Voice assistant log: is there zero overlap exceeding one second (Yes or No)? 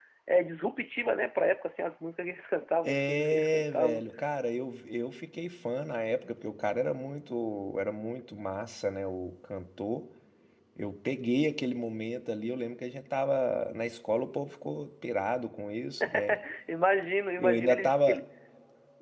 No